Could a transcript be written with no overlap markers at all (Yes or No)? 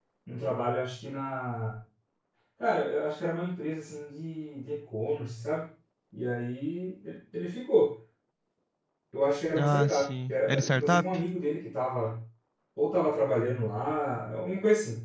No